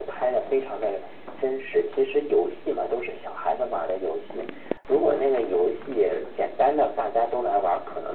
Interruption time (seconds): none

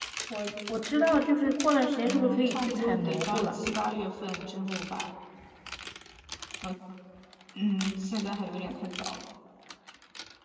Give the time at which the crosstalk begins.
2.0 s

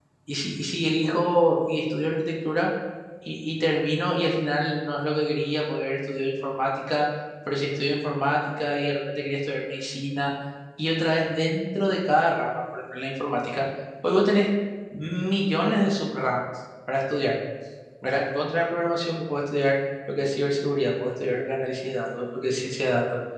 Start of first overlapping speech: none

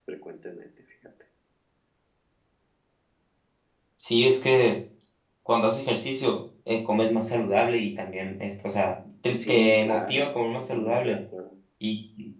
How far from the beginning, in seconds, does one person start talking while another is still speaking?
9.4 s

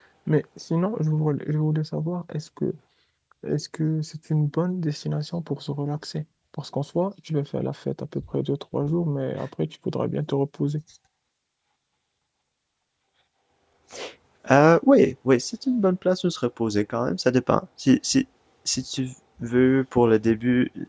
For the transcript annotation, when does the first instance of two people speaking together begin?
none

